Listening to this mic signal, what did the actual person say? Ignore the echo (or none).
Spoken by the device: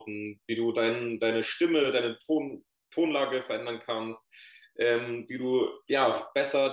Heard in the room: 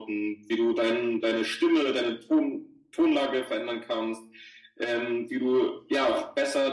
none